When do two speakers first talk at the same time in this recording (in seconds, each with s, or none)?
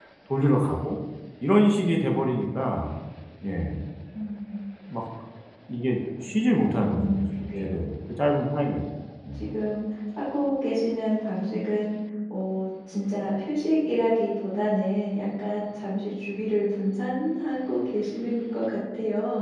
6.6 s